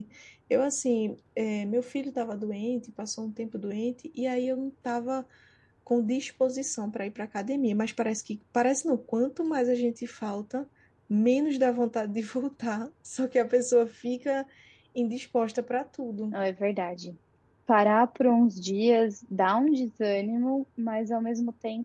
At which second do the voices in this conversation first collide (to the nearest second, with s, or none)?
none